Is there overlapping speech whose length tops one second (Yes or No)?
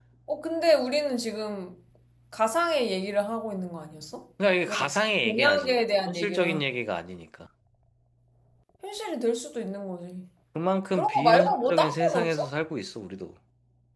Yes